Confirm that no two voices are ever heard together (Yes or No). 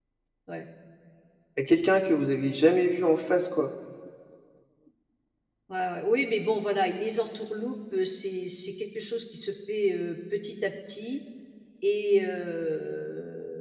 Yes